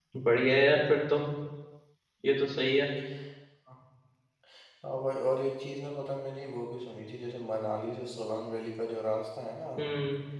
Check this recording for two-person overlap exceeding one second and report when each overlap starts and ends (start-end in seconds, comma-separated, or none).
none